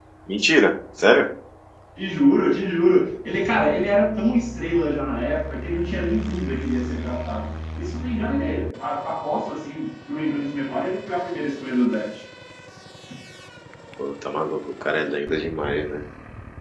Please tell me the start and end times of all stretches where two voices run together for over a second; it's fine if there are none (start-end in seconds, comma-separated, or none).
none